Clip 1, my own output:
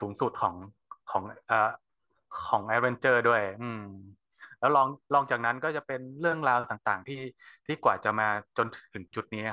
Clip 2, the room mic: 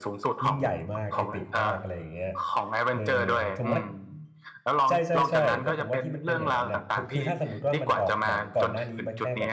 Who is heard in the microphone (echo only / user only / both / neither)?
both